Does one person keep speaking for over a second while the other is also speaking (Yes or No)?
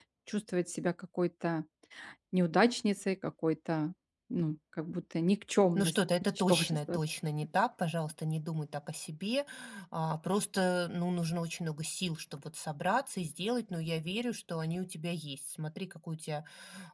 Yes